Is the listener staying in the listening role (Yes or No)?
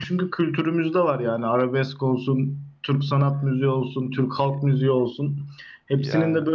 Yes